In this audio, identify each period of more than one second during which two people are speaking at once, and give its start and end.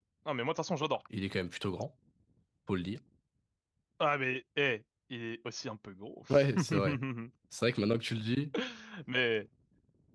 none

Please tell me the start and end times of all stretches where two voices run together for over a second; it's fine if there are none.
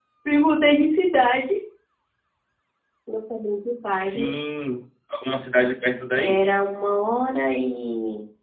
none

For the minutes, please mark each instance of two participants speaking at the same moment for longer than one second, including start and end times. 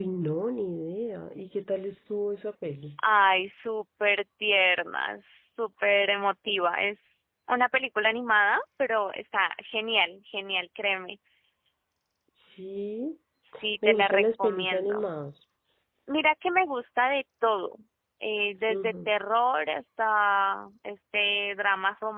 13.8-15.1

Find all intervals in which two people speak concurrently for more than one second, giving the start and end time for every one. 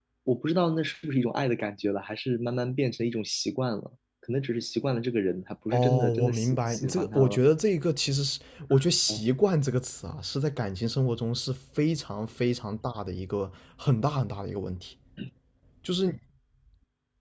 5.7-7.4

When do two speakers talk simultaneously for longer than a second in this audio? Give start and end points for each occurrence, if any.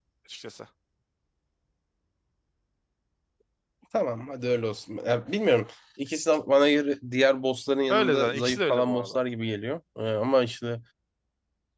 7.9-9.2

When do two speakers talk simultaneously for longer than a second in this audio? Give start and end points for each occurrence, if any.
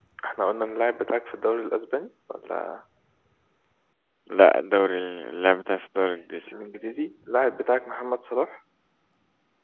none

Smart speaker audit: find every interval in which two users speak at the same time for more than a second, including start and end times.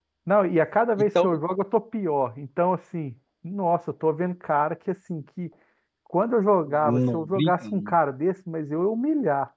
6.7-8.0

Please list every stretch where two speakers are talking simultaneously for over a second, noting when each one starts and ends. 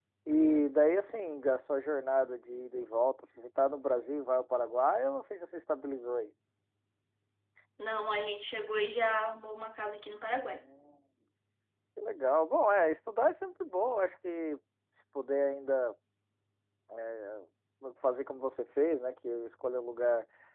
none

